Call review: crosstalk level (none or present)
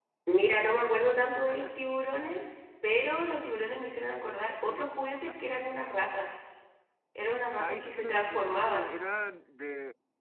present